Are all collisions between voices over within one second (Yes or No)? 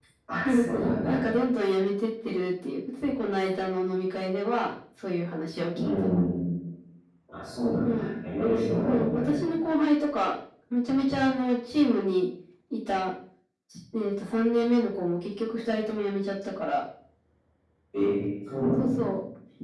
Yes